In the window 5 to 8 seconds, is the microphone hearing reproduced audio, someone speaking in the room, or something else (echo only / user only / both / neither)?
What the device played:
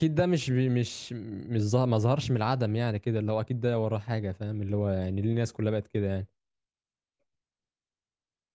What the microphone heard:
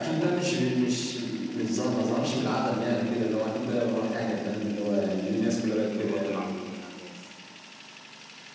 both